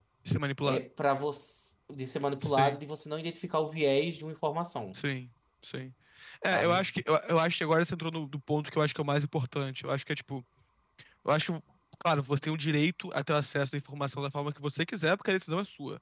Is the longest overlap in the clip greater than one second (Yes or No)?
No